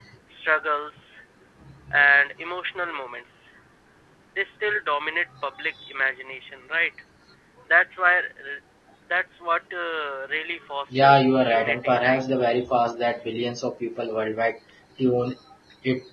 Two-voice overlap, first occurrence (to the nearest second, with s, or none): 11 s